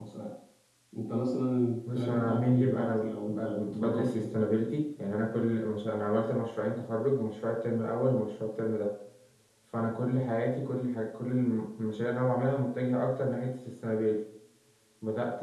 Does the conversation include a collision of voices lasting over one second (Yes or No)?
Yes